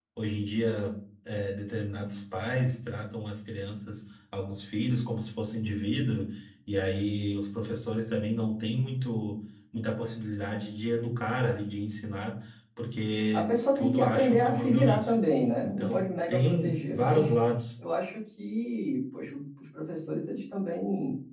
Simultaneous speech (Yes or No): Yes